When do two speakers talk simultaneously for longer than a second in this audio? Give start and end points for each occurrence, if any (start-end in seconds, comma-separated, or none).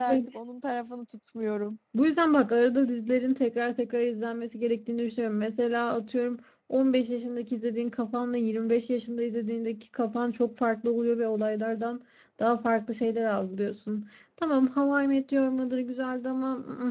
none